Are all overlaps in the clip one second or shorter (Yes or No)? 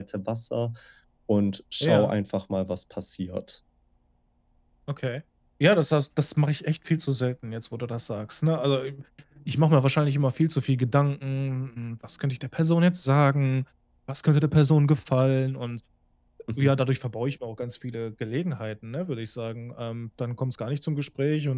Yes